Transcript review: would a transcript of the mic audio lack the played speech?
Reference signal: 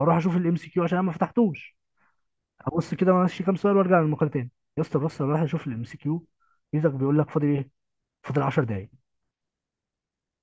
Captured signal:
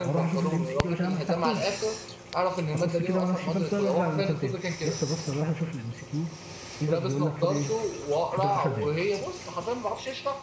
No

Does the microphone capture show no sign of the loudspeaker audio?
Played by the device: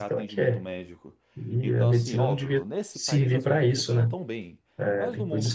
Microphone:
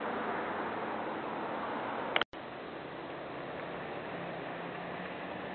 Yes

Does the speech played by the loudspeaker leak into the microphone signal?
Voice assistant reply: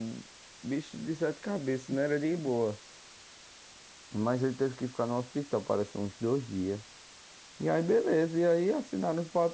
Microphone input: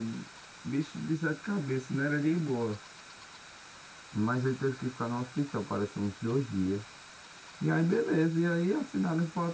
Yes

